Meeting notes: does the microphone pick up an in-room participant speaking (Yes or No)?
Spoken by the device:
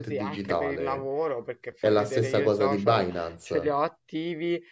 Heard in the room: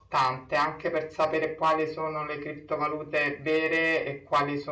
Yes